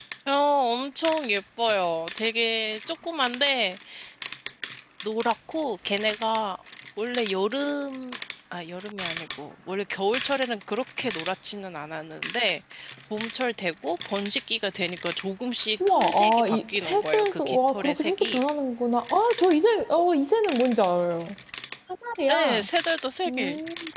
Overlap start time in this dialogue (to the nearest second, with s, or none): 16 s